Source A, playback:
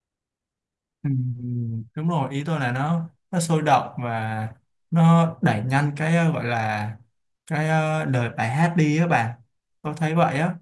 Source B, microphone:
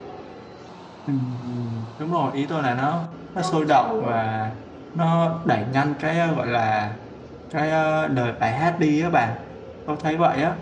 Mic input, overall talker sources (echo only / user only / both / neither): both